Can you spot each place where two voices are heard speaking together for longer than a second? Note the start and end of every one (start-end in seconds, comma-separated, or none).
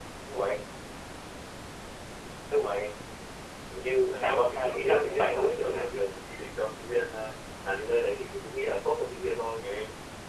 4.1-5.8